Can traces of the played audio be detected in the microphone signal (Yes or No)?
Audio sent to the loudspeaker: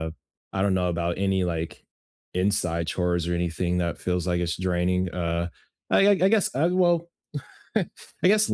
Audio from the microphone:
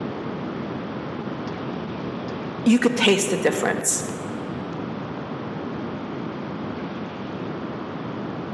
No